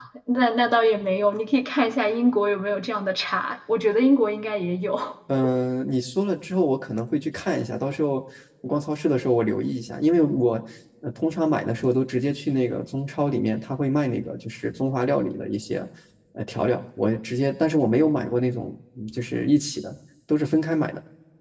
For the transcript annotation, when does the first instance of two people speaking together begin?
none

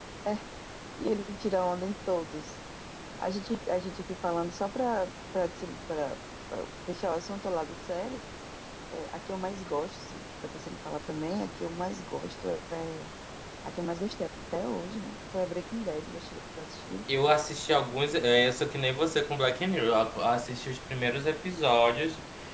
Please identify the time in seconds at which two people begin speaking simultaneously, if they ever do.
none

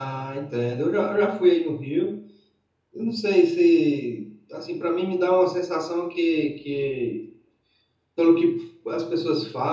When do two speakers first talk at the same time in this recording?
none

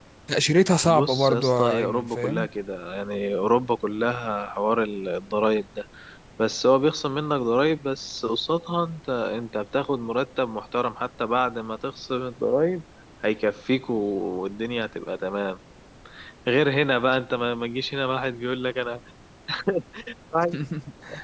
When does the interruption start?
0.8 s

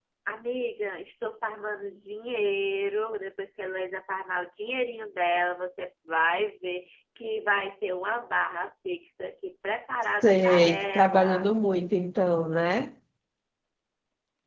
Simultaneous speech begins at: 10.2 s

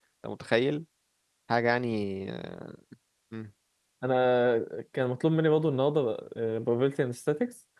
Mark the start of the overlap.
none

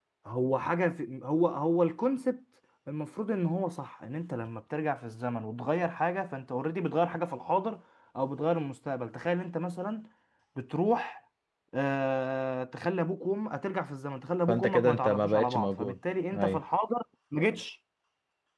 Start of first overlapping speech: 14.5 s

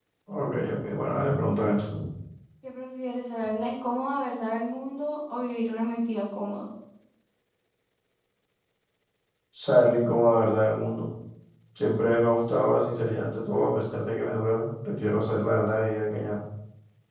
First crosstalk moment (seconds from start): none

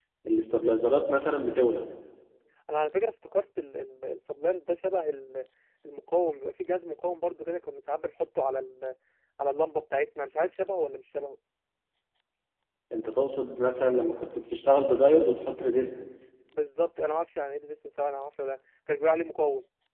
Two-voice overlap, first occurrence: none

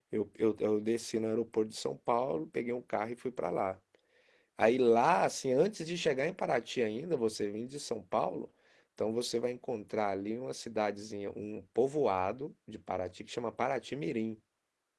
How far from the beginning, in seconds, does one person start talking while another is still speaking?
none

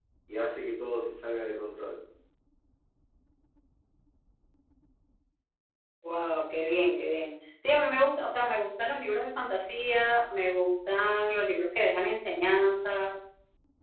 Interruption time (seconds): none

